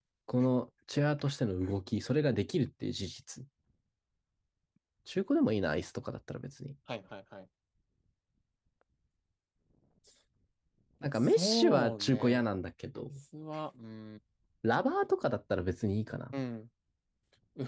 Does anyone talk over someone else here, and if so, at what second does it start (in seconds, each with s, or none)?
11.2 s